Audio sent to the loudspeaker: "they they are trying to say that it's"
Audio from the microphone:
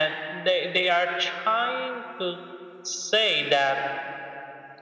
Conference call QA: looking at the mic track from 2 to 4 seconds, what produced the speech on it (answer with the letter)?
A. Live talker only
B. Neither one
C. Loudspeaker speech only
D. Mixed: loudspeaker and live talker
C